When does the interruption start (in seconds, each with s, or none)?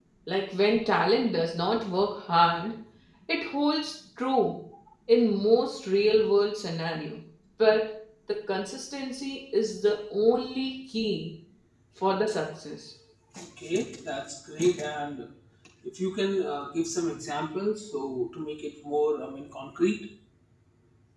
none